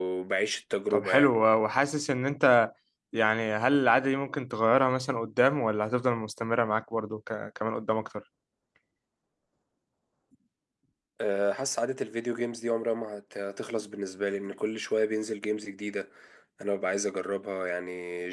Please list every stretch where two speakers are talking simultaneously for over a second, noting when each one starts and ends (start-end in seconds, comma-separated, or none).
none